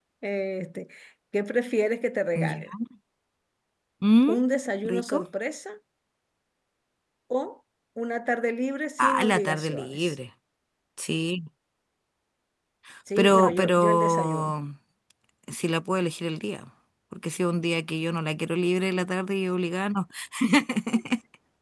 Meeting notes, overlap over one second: present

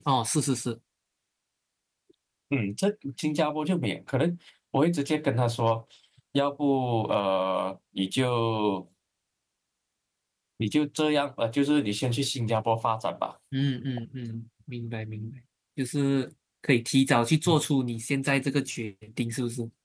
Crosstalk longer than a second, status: none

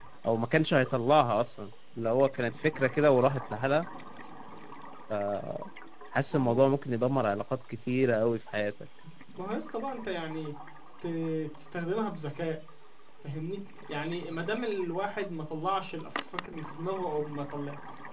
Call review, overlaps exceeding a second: none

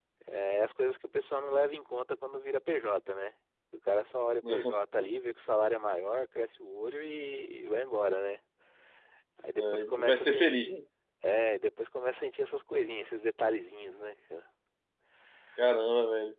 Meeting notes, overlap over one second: present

